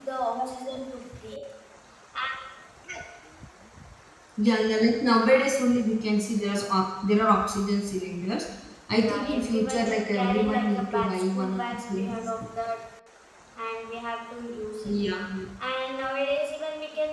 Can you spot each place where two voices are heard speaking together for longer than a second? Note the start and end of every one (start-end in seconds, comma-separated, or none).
9.0-12.1